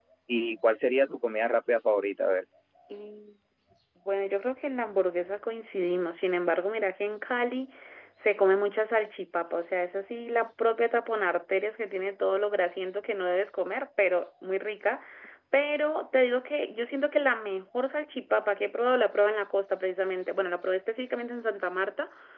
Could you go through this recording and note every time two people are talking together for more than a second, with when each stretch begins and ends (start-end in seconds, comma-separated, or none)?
none